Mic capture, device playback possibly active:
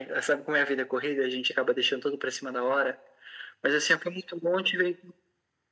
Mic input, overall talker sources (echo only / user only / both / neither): echo only